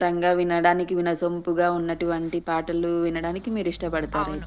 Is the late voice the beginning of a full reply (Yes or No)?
Yes